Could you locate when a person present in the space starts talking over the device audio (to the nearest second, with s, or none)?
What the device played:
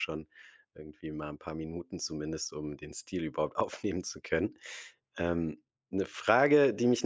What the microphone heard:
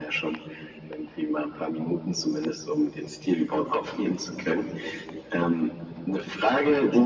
none